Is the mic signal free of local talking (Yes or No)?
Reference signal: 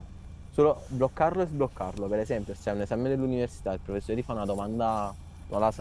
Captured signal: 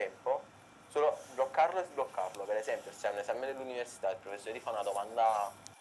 Yes